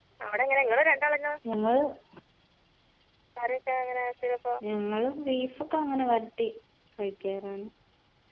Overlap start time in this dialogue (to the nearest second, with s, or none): none